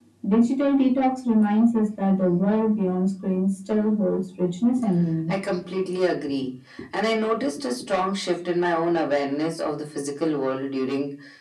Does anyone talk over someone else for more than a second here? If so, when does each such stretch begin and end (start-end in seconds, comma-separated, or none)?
none